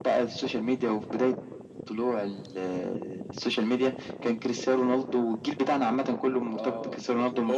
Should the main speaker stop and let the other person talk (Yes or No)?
Yes